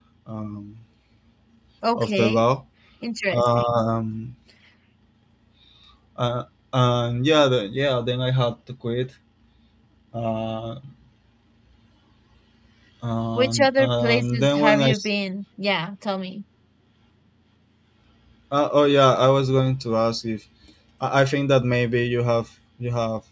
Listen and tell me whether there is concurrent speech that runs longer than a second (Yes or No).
Yes